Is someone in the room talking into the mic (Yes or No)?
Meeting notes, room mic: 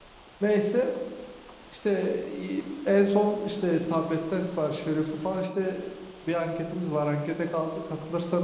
Yes